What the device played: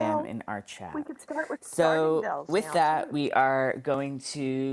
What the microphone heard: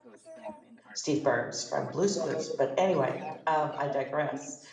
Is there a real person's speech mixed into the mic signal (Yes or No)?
Yes